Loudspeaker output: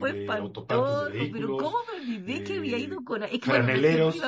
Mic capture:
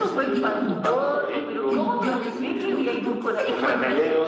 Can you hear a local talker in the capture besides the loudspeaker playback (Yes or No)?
Yes